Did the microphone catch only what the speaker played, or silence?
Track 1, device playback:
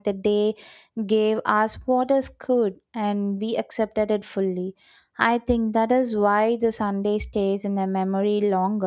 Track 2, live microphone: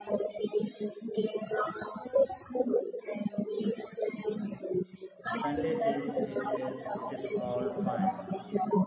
No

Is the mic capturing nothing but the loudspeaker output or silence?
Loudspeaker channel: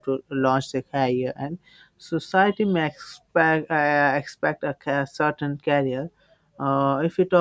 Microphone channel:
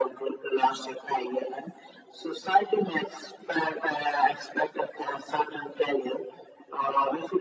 Yes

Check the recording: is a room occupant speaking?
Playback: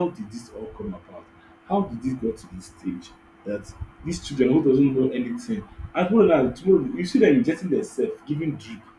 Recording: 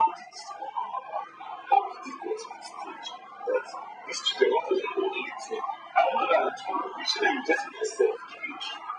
No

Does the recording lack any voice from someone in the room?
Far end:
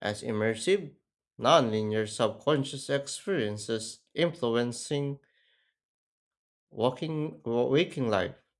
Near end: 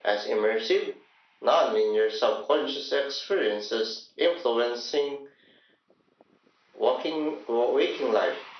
Yes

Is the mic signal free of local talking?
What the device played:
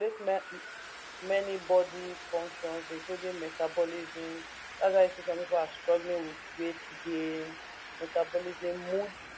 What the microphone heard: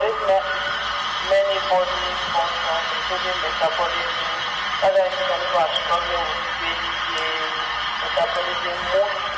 Yes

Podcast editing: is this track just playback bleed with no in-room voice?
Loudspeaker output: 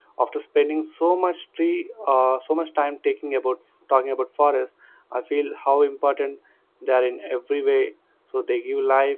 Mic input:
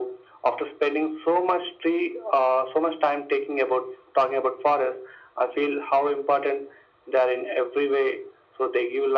Yes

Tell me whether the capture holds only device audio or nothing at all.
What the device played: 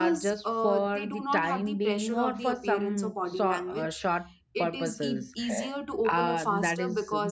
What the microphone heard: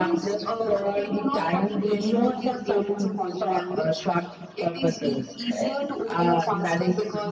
Yes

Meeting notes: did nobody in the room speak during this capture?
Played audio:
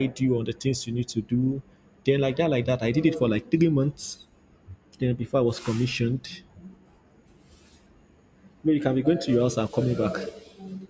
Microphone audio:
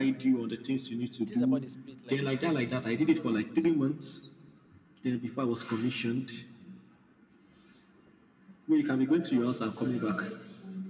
No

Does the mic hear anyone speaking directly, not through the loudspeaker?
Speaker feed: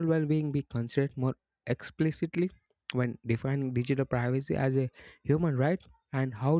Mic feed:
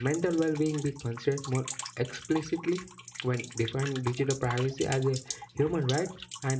No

